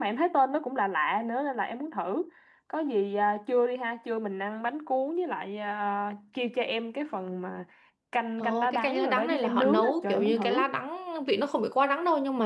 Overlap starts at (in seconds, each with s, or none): 8.4 s